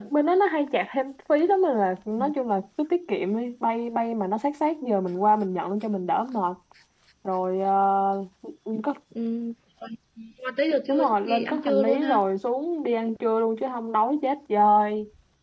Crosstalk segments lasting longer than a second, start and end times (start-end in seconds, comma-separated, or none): 10.9-12.3